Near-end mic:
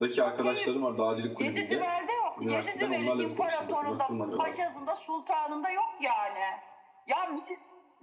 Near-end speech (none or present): present